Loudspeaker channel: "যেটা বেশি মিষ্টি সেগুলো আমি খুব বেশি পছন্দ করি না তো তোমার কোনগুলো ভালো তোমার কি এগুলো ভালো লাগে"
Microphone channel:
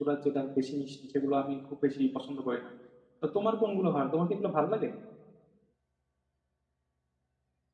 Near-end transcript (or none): none